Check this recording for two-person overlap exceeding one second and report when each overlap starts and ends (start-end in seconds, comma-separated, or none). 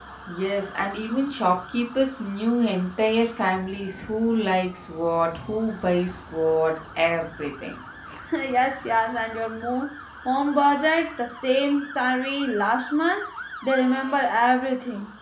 none